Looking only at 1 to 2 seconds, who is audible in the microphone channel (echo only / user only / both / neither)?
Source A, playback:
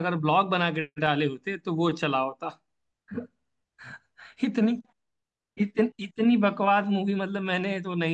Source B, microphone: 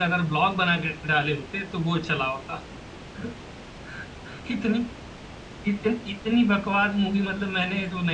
echo only